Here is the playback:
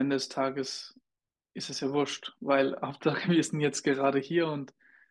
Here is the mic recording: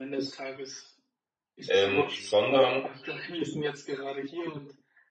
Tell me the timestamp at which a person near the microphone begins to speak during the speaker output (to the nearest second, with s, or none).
2 s